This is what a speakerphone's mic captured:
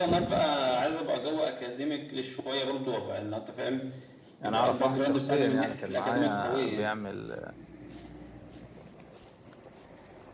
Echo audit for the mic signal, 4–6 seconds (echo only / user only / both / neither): both